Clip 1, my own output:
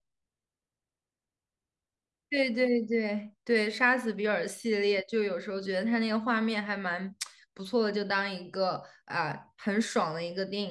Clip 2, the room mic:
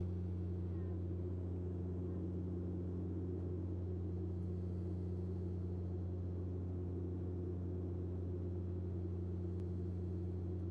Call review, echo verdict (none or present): none